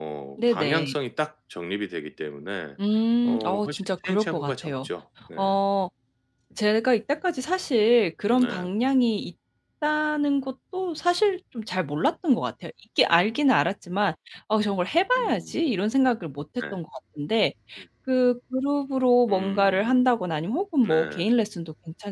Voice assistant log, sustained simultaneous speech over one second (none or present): present